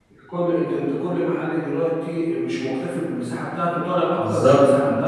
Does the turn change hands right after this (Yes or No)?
Yes